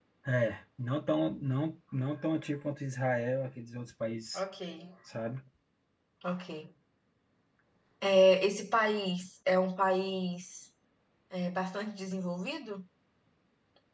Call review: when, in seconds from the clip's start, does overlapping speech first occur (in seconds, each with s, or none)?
none